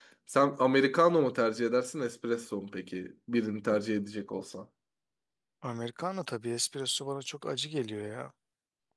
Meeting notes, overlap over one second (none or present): none